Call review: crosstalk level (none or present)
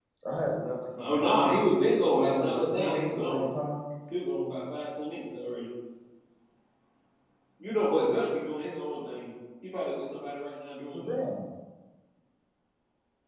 present